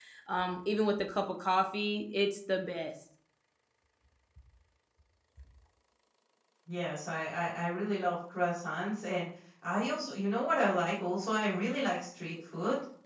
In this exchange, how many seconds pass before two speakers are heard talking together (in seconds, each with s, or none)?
none